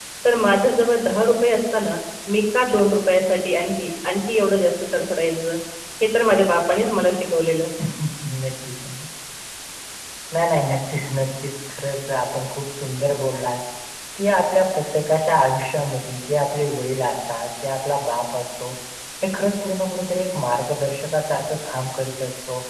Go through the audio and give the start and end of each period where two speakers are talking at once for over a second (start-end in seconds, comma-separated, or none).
none